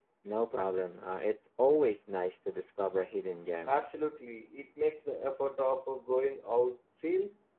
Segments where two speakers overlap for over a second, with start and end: none

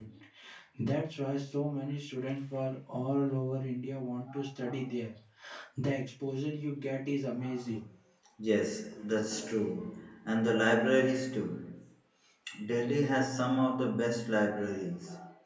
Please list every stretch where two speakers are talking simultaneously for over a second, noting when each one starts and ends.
none

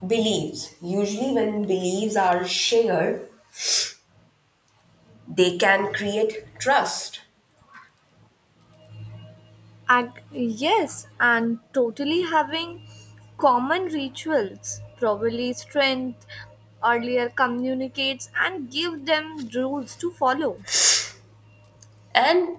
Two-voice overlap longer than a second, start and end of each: none

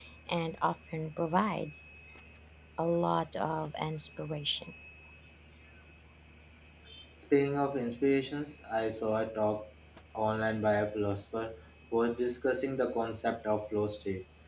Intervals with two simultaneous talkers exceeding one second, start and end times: none

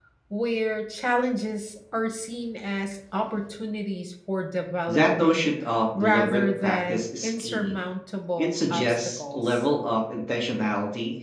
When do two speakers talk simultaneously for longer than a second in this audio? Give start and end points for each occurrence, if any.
5.9-7.7, 8.4-9.6

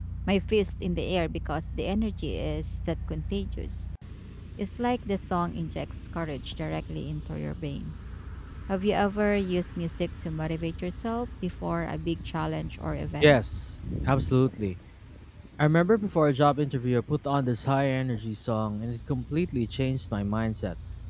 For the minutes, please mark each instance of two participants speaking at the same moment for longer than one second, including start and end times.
none

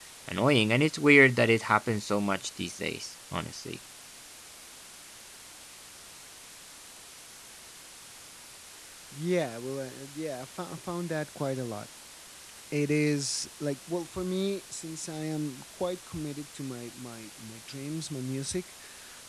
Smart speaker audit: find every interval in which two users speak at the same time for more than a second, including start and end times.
none

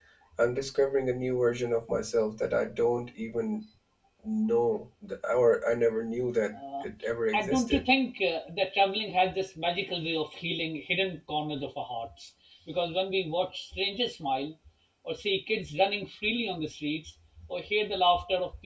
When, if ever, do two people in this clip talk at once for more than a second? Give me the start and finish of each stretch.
none

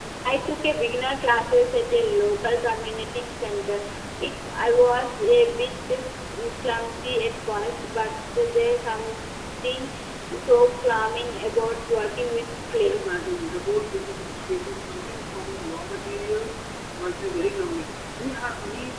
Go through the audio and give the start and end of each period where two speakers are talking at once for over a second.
none

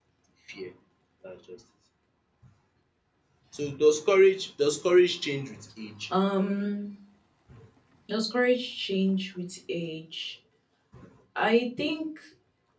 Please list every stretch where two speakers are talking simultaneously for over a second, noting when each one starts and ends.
none

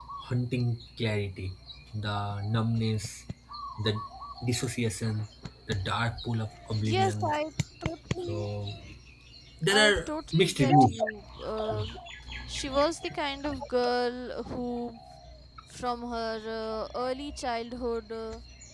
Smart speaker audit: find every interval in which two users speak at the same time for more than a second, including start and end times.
9.7-11.0

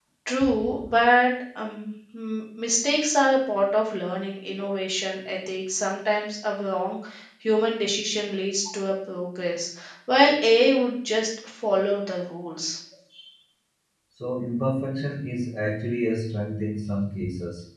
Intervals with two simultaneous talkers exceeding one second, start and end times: none

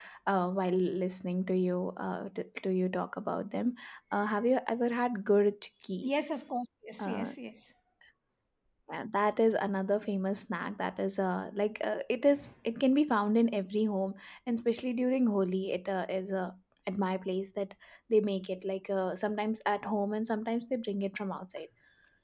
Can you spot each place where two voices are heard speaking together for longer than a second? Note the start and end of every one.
none

